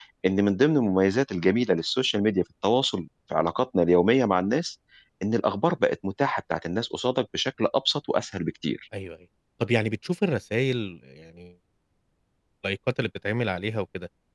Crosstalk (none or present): none